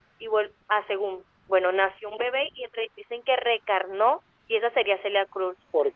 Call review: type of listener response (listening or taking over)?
listening